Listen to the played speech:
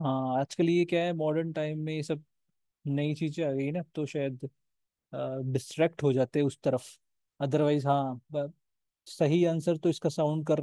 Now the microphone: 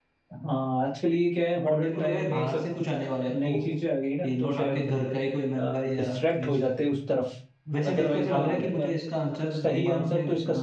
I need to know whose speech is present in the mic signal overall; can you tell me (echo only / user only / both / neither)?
both